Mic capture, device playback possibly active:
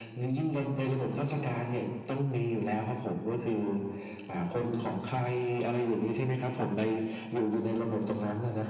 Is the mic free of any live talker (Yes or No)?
Yes